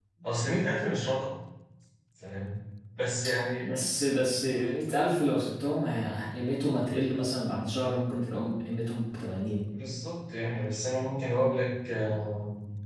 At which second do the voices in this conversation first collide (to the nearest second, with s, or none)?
none